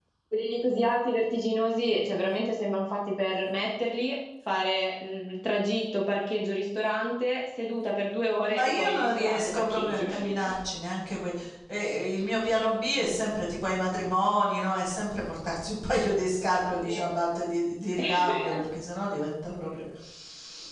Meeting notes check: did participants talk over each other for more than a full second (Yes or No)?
Yes